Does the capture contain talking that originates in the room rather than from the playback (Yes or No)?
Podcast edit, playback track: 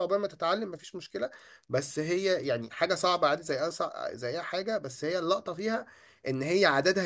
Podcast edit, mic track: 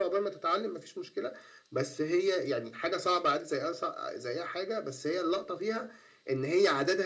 No